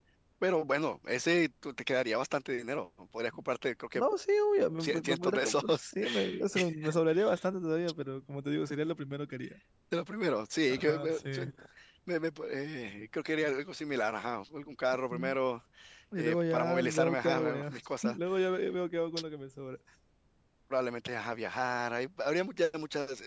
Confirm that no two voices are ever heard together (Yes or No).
No